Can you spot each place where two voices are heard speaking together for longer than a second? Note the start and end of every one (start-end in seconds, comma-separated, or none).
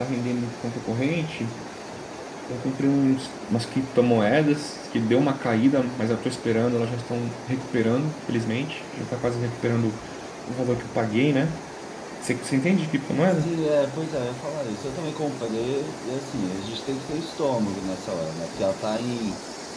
none